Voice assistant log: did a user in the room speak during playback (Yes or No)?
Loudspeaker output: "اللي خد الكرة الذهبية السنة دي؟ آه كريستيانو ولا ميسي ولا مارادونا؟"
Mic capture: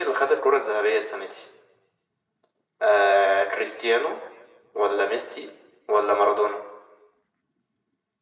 No